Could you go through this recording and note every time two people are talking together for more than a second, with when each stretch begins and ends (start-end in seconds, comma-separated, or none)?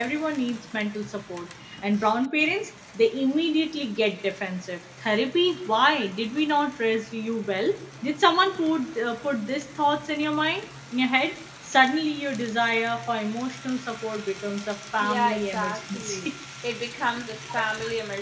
15.0-16.3